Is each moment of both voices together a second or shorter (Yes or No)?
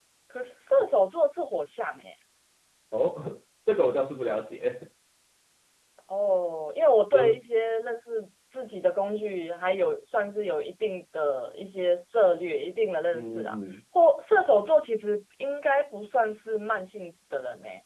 Yes